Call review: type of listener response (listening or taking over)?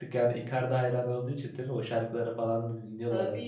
taking over